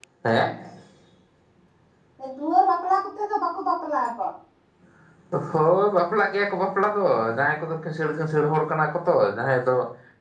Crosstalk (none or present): none